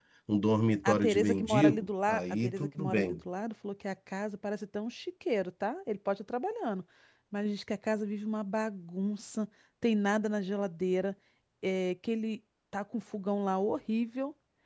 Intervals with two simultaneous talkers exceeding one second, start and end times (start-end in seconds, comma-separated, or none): 0.8-3.2